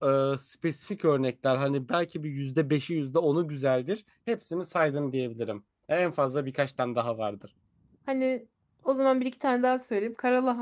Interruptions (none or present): none